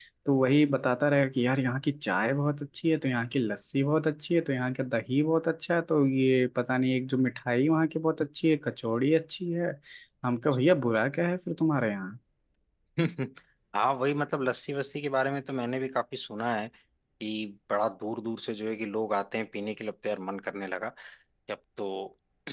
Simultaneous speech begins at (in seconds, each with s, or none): none